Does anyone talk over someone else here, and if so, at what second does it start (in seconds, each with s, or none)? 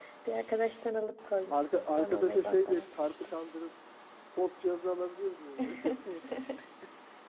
1.5 s